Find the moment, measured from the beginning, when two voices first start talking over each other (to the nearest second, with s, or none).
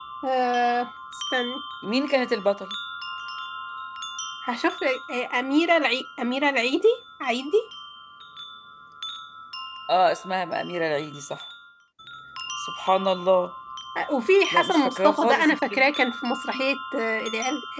15 s